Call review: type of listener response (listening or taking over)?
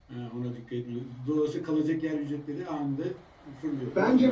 taking over